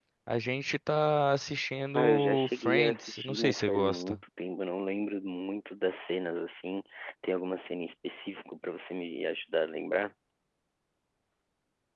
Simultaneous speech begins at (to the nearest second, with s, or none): 2 s